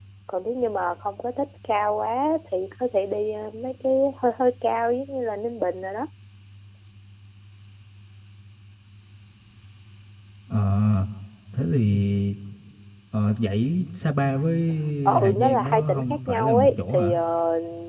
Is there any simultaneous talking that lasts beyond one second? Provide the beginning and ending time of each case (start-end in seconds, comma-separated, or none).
15.2-17.1